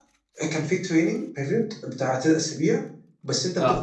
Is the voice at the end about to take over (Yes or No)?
No